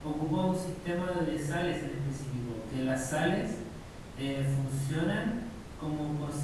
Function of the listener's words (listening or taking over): listening